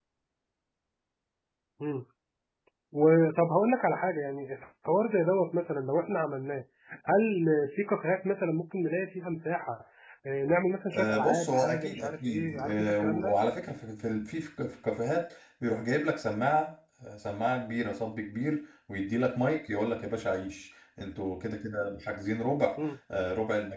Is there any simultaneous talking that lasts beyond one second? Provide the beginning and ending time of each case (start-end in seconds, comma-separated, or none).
10.9-13.3